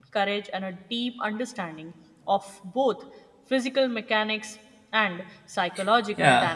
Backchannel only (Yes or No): No